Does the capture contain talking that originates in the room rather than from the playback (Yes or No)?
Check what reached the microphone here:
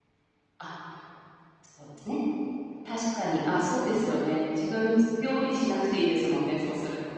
Yes